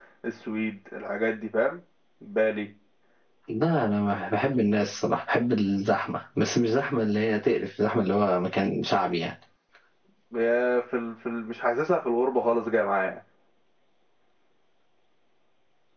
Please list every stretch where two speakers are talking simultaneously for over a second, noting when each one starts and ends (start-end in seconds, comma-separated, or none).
none